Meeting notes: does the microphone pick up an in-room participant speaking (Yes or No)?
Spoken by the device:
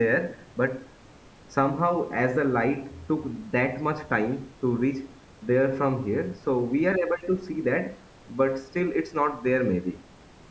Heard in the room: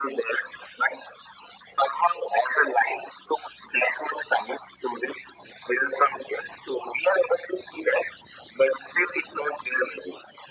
No